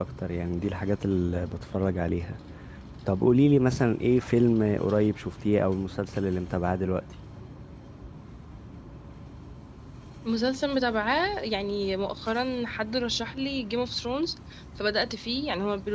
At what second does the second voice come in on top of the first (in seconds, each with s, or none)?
none